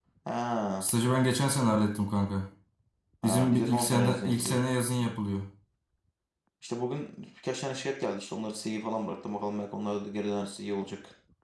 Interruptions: present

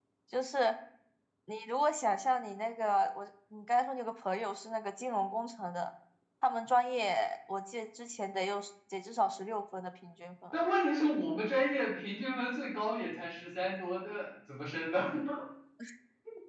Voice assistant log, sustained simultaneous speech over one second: none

